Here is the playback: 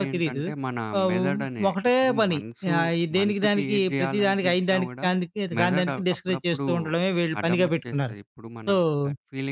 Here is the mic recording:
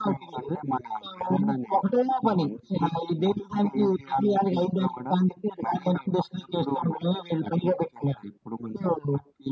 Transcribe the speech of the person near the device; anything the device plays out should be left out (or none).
none